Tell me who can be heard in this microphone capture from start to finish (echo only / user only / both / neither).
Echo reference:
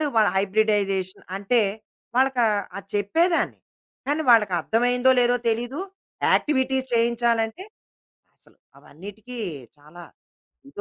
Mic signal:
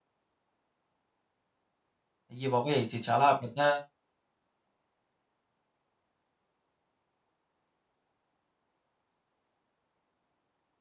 user only